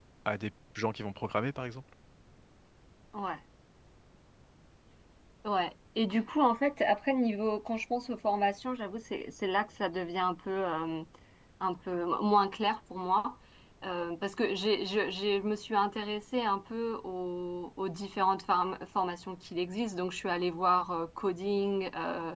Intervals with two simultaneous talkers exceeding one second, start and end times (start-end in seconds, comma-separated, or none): none